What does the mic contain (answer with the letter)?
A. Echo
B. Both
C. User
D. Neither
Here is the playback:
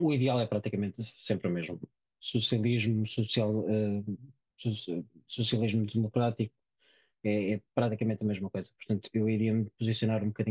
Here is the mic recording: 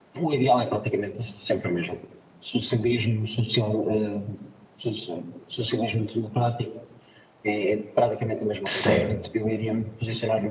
B